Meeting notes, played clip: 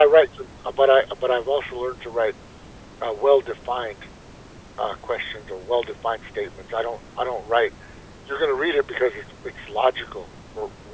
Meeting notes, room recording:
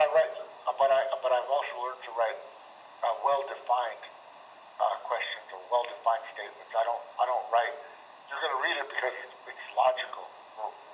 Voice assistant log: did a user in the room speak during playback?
No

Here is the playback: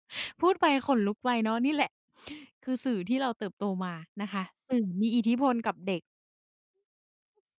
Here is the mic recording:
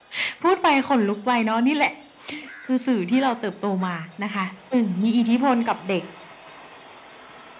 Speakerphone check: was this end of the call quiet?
Yes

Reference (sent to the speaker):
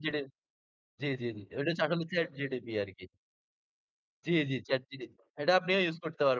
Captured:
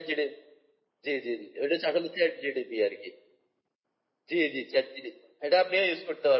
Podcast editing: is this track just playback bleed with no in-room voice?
Yes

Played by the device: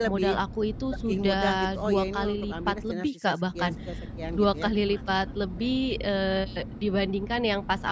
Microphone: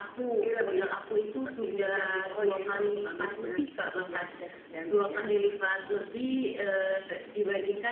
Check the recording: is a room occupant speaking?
No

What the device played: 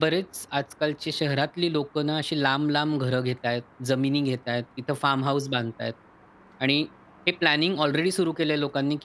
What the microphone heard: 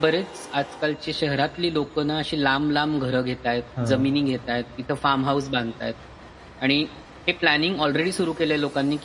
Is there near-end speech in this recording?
Yes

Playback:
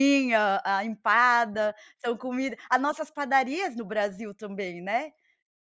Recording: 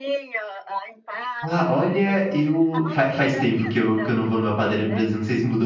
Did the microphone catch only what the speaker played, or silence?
No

